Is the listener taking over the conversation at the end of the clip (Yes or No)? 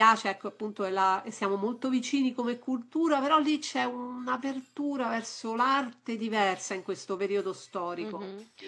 Yes